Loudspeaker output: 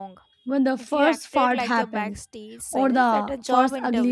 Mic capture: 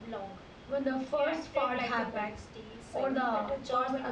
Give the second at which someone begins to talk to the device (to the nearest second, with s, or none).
none